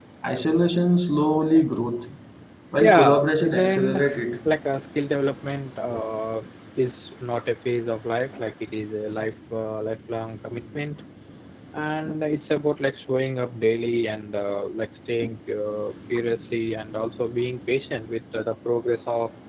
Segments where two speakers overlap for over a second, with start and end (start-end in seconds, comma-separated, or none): 2.8-4.0